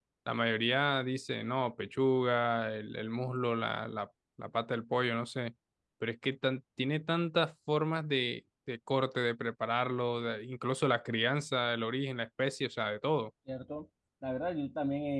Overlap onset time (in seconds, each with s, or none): none